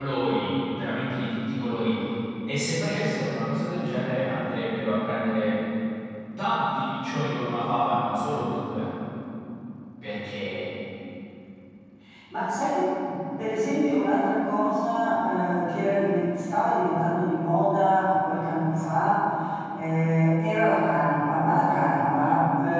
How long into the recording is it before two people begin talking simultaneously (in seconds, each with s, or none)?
none